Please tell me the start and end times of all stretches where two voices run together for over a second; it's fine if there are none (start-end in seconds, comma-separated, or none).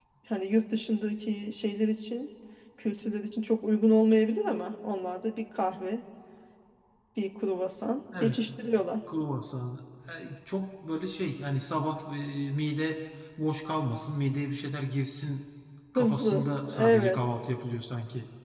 15.9-17.2